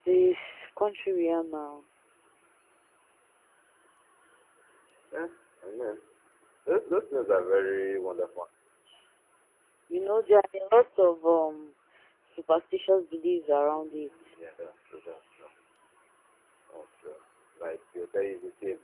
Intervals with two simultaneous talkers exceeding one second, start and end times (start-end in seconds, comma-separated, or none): none